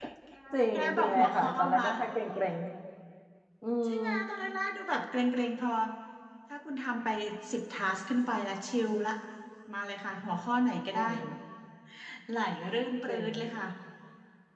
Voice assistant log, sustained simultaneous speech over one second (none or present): present